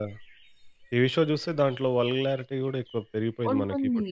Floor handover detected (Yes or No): Yes